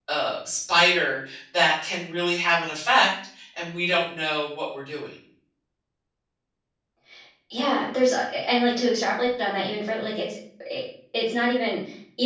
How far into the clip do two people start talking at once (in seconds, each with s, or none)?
none